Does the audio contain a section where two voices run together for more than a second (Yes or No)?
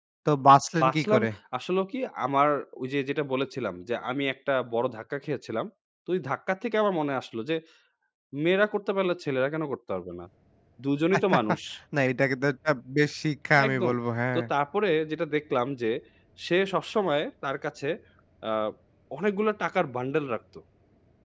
No